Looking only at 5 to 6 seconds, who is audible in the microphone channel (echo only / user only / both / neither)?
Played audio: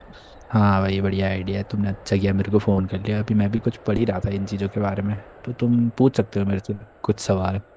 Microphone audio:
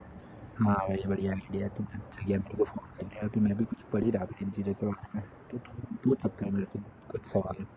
echo only